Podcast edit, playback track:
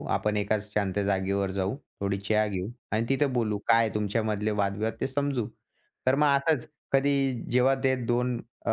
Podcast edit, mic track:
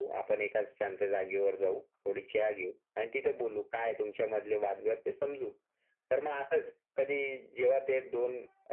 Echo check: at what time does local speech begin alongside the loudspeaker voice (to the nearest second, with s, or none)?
none